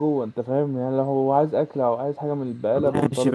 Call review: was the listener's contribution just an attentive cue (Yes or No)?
No